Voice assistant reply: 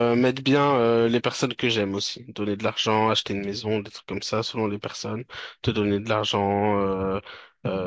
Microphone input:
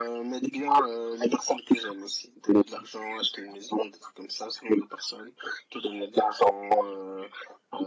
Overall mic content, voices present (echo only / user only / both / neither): echo only